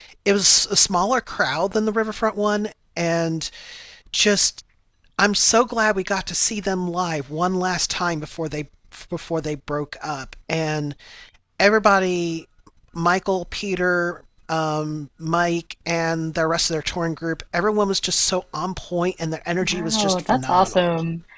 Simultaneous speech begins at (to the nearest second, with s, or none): 20 s